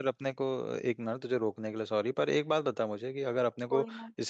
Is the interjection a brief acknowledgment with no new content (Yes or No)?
Yes